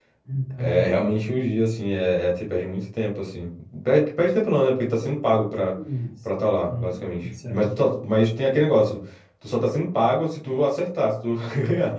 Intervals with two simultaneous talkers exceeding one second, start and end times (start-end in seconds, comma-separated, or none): 6.7-8.1